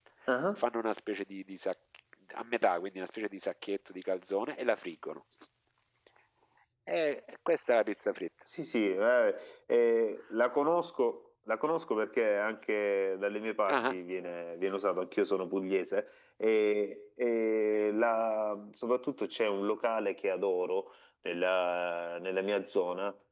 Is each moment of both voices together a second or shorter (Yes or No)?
Yes